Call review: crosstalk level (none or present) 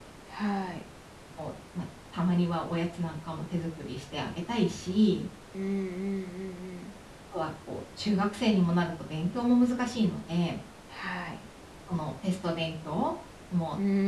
none